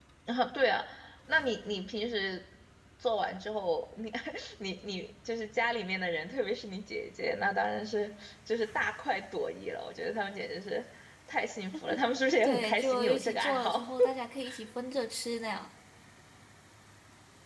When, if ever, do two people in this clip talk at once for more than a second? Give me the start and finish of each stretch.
12.4-13.9

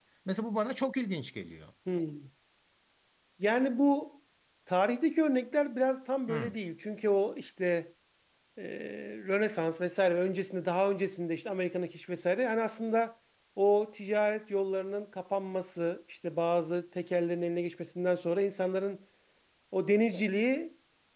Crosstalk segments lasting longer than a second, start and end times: none

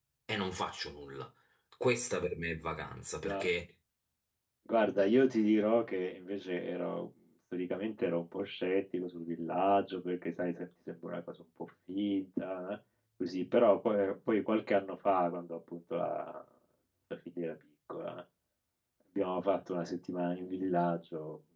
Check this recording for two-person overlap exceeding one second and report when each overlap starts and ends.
none

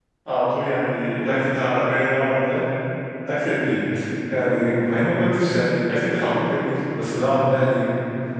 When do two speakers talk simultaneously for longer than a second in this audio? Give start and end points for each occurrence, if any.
none

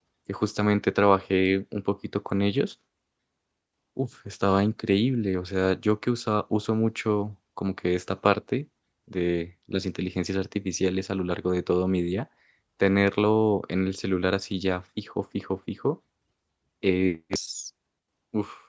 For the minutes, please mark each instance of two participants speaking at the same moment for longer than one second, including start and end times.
none

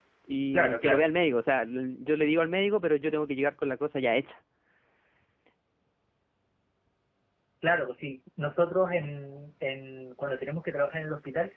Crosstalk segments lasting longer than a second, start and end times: none

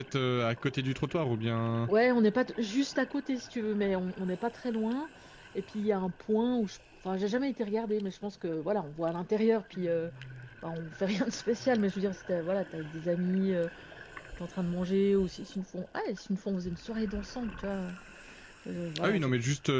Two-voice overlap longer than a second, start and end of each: none

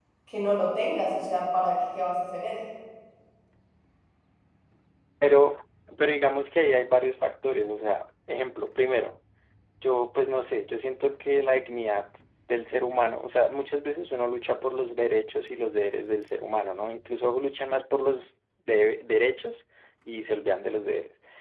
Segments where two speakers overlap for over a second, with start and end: none

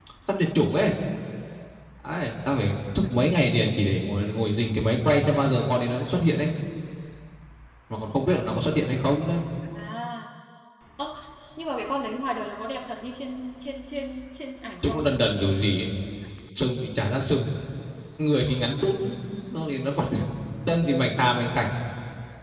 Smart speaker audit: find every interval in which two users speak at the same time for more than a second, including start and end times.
none

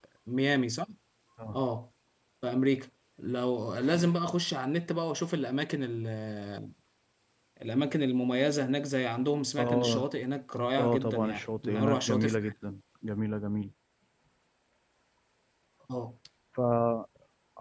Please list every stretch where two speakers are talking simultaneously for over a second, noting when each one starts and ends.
10.8-12.5

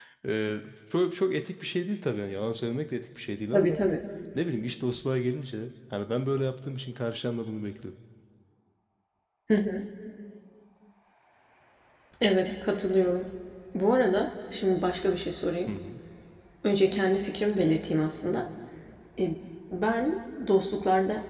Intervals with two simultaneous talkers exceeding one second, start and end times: none

